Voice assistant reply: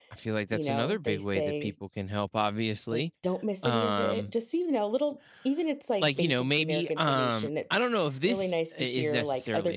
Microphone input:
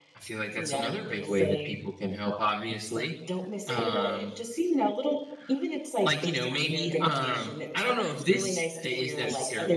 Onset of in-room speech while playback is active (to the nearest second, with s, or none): none